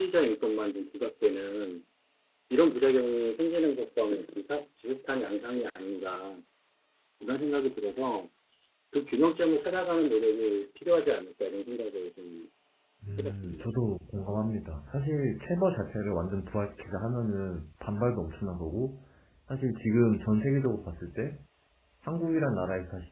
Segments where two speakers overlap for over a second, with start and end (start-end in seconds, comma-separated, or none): none